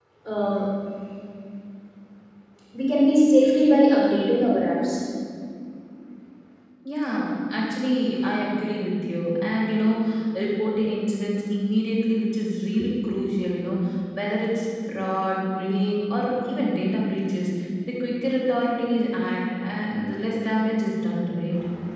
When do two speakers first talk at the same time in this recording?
none

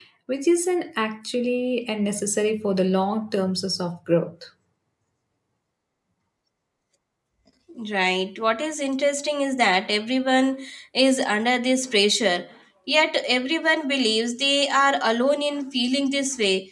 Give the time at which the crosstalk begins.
none

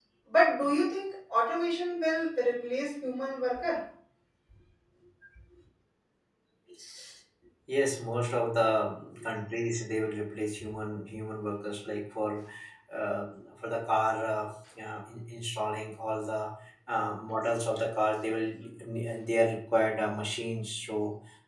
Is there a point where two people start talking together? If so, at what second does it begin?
none

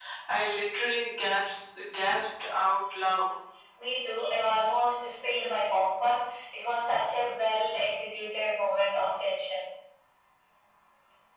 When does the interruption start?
none

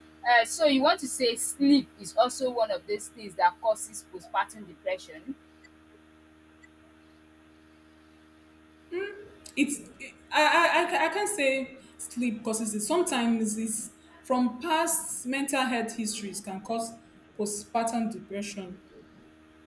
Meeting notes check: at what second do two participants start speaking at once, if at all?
none

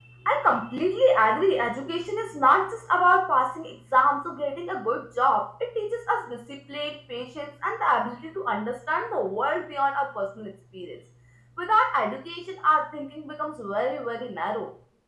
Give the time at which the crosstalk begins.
none

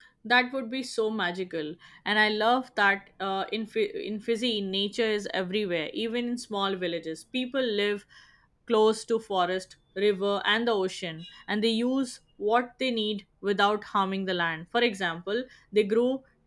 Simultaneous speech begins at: none

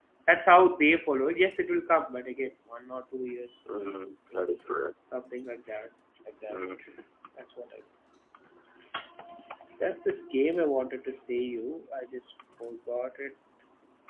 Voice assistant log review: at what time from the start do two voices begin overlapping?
none

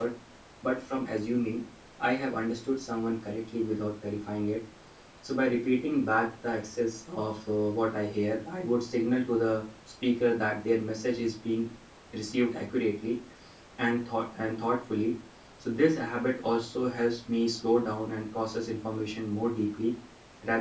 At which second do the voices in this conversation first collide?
none

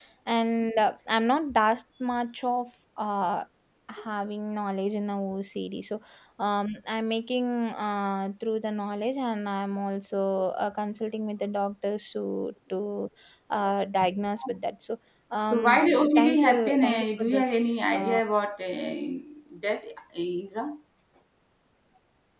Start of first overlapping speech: 15.5 s

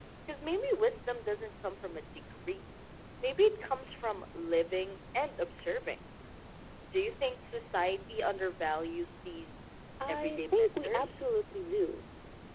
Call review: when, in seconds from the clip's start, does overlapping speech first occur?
10.0 s

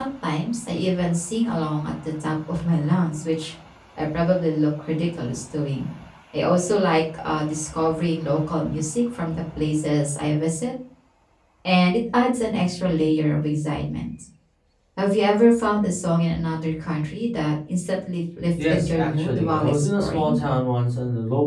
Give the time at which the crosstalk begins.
18.6 s

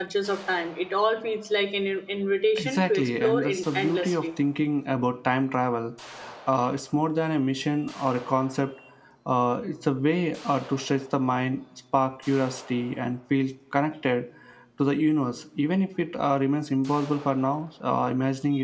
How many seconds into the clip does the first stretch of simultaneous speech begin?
2.6 s

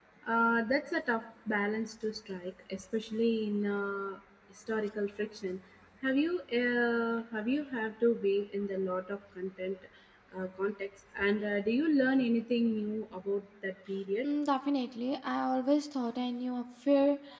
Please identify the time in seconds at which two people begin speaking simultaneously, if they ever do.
none

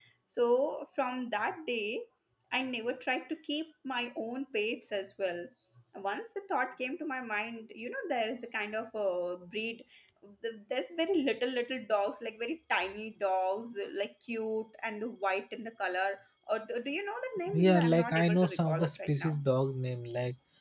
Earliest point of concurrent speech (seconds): 17.5 s

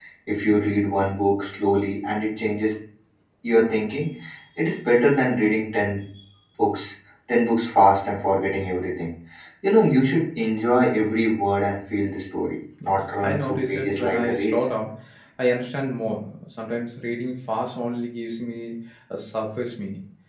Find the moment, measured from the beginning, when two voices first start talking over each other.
12.8 s

